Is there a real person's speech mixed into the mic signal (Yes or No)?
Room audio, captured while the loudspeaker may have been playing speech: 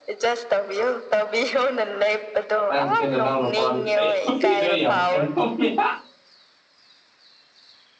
Yes